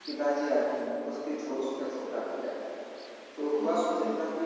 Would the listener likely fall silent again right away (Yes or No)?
Yes